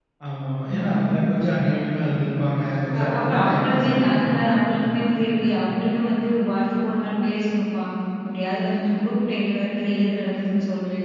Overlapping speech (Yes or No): Yes